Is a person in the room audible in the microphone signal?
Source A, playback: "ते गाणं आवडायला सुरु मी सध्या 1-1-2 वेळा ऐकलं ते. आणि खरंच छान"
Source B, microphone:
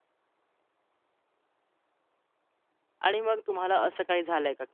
Yes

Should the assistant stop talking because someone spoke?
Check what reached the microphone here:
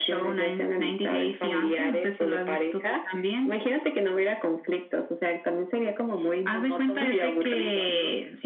No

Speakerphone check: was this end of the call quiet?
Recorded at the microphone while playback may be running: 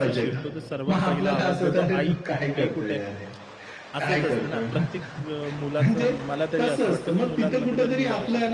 No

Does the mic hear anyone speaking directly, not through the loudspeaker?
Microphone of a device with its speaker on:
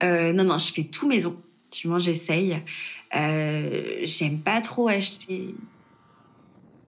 No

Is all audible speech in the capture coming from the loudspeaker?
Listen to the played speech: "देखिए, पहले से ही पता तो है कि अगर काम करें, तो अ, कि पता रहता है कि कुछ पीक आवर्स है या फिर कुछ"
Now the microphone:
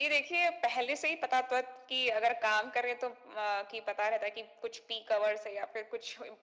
Yes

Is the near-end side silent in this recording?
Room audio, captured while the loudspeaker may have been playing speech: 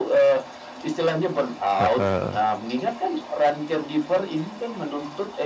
No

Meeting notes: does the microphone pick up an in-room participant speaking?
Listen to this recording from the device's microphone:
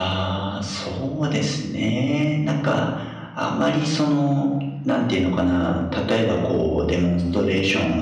Yes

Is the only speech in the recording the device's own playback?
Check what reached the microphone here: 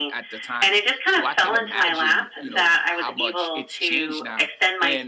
No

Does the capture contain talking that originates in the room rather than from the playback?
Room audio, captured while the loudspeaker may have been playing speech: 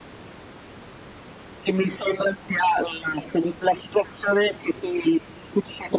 No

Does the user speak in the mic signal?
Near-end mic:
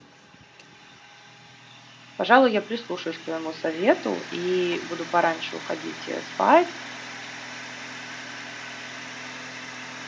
Yes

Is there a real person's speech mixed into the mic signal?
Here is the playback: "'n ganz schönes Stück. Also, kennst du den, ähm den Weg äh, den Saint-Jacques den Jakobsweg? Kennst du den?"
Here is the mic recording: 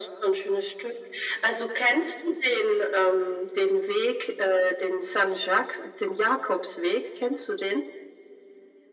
No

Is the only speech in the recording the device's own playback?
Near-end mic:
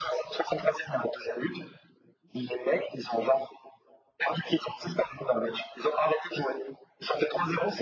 Yes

